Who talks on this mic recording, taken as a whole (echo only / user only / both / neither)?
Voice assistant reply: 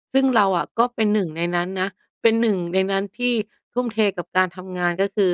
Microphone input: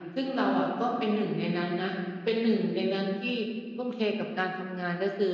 echo only